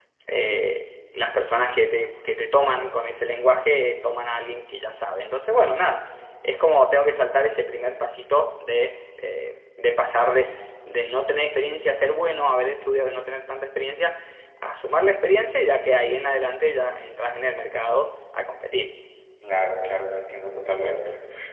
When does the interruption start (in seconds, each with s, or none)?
none